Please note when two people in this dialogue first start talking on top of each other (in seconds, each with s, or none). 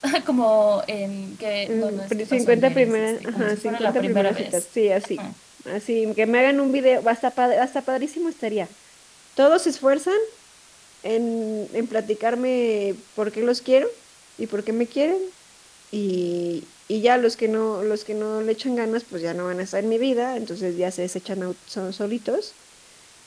1.7 s